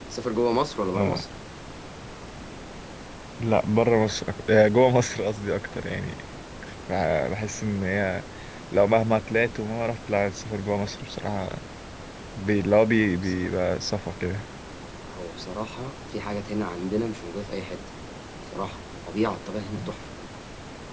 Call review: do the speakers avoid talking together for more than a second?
Yes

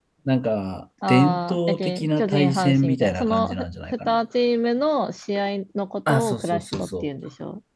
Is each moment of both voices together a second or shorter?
No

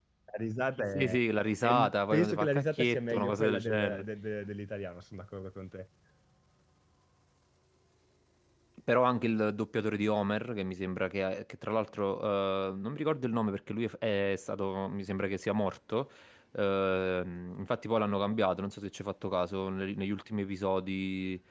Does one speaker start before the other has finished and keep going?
Yes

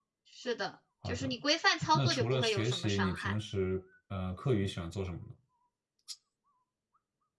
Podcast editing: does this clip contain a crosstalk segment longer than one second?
Yes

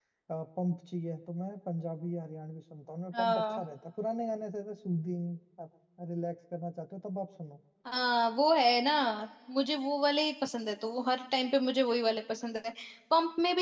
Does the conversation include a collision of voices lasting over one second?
No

